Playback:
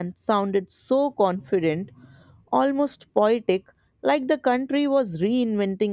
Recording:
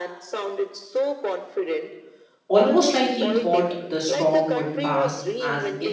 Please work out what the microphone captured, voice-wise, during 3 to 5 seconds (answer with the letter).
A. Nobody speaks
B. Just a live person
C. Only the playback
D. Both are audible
D